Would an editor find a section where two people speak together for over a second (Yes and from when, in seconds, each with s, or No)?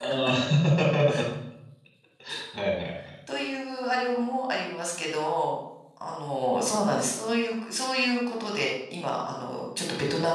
No